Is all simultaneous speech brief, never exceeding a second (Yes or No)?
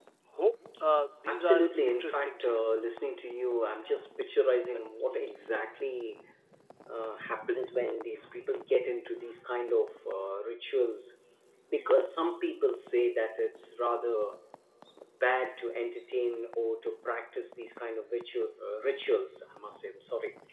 No